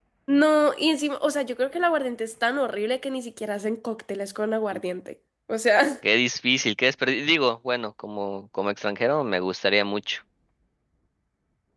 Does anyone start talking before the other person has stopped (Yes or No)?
No